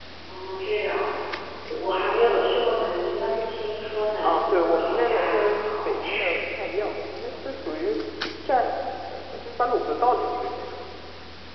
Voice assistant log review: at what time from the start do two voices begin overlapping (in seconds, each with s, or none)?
4.2 s